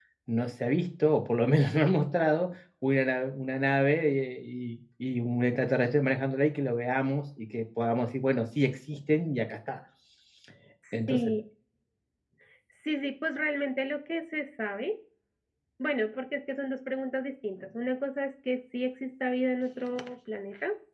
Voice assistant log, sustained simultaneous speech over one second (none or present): none